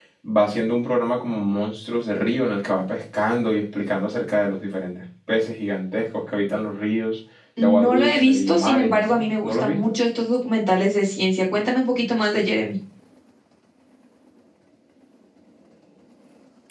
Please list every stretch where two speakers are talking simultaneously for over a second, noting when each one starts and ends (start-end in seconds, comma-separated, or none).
7.6-9.8